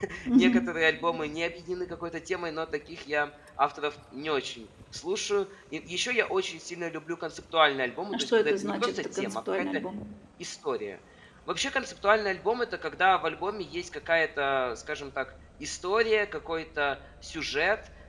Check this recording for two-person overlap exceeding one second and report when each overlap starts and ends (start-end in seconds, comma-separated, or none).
8.1-9.8